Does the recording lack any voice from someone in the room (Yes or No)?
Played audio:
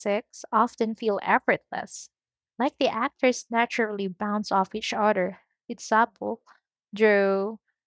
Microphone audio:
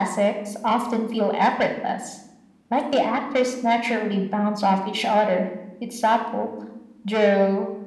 Yes